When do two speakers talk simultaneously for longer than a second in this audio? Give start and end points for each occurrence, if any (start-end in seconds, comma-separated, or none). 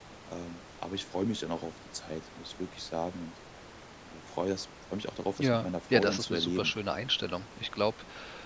5.4-6.7